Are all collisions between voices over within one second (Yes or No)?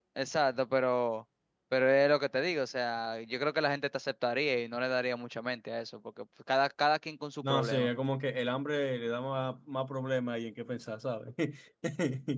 Yes